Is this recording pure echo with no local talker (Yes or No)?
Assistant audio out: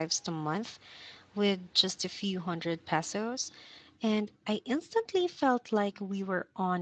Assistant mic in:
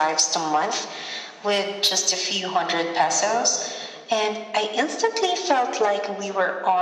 Yes